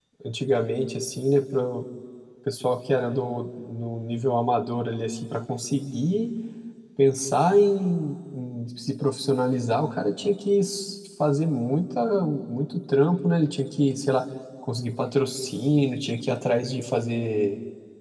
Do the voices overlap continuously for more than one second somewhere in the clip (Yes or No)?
No